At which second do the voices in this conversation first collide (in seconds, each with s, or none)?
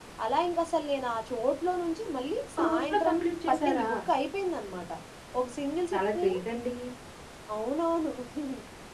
2.6 s